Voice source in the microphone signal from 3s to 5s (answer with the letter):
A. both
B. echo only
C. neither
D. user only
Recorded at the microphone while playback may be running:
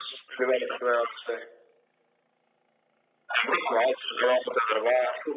B